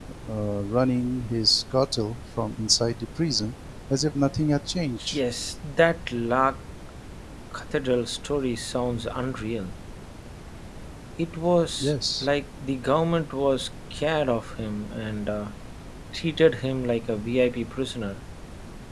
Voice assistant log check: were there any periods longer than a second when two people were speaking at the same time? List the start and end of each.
none

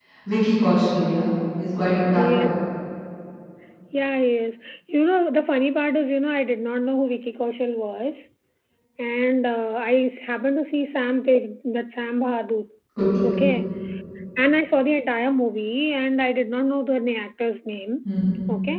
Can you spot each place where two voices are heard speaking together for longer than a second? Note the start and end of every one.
none

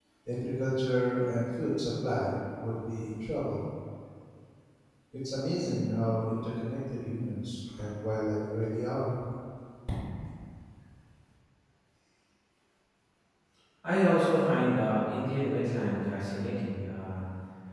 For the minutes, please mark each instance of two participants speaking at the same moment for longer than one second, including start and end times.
none

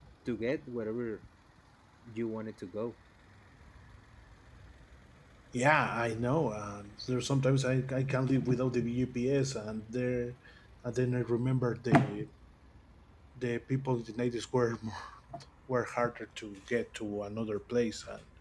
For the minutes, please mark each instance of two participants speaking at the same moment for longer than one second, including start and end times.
none

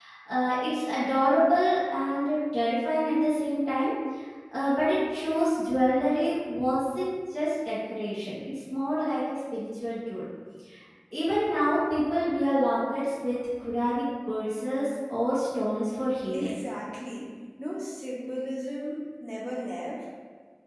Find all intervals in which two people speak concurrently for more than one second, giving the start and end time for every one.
none

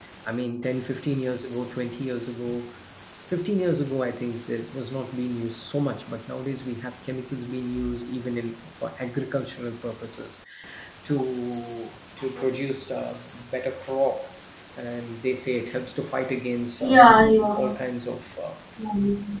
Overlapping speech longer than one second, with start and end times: none

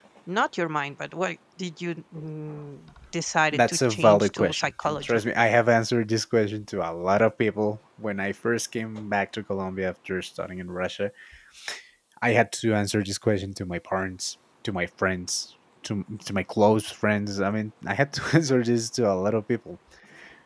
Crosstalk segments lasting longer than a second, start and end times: 3.5-5.2

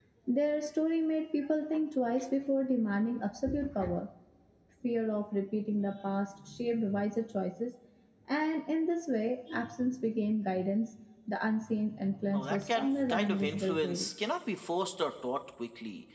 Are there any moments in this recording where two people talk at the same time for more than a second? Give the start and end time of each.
12.3-14.1

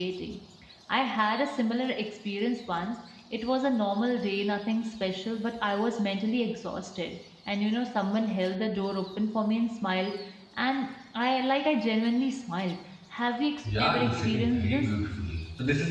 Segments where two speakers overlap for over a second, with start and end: 13.6-14.9

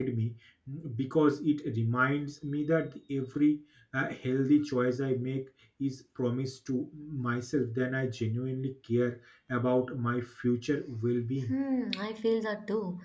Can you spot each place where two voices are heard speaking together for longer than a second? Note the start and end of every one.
none

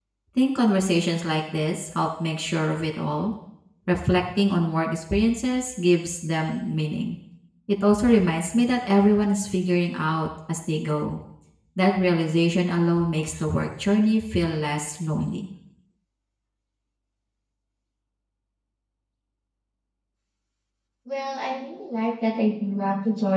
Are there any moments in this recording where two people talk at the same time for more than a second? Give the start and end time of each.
none

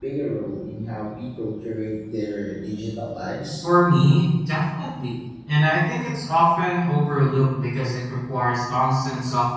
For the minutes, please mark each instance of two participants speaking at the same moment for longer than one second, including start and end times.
none

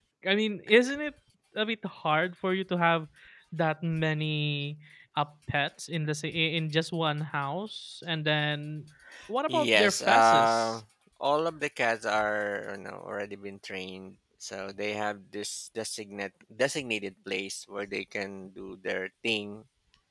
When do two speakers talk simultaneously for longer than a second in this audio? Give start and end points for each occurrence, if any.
9.5-10.8

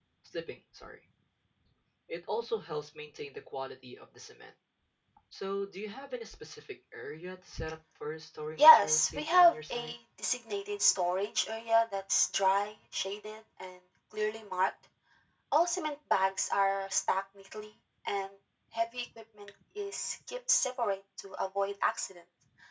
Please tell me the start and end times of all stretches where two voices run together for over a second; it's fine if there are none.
8.6-9.9

